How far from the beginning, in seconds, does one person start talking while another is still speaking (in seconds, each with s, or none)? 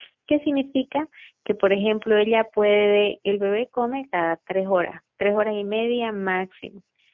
none